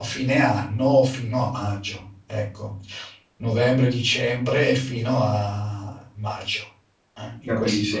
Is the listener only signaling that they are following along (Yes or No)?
No